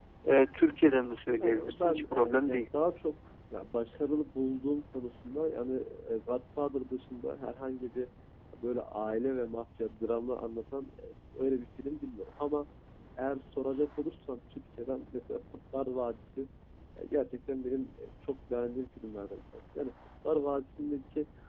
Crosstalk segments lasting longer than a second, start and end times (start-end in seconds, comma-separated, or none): 1.4-2.6